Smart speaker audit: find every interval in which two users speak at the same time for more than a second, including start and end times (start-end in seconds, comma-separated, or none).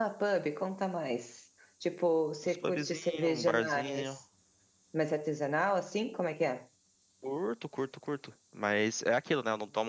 2.5-4.2